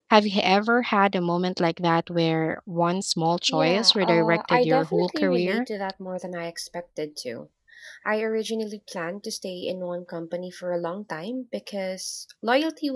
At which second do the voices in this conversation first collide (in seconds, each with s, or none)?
3.5 s